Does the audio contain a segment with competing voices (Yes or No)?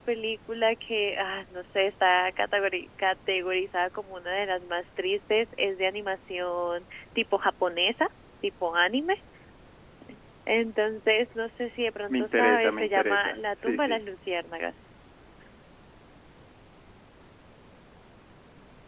Yes